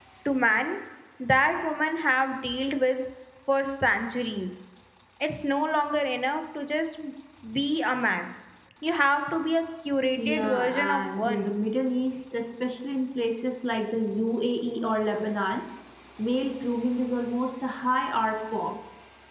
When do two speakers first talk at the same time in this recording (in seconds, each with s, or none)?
10.2 s